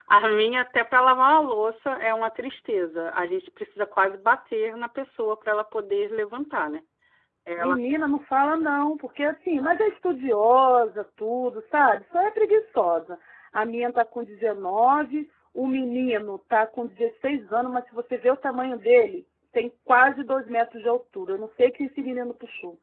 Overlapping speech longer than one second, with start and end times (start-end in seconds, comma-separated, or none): none